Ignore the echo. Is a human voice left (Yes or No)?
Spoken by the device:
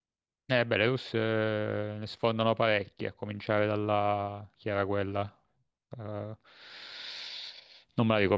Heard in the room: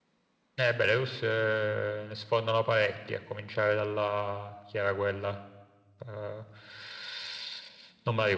No